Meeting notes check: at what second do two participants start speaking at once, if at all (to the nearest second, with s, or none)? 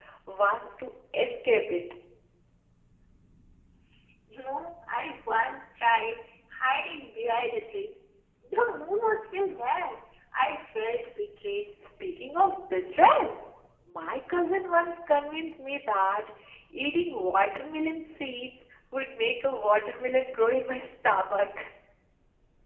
none